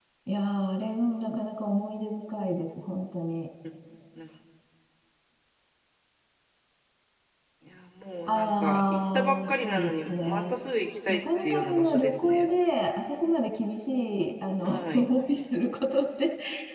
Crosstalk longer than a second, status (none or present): present